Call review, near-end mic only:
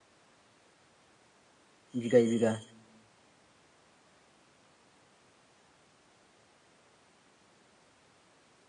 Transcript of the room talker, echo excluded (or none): बिगायै बिगा